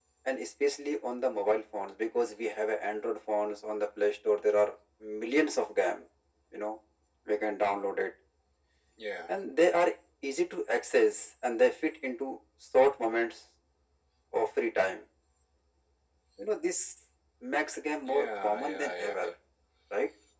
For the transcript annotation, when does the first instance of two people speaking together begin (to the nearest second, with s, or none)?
18 s